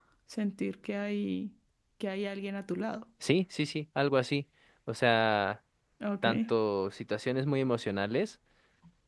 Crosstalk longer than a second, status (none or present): none